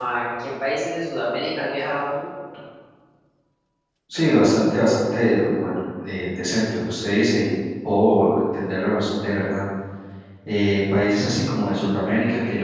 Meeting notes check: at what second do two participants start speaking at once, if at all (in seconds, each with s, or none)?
none